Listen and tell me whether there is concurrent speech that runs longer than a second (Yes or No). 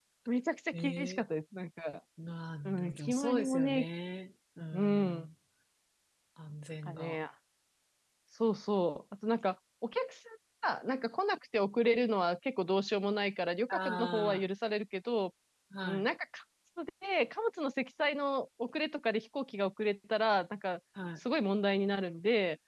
Yes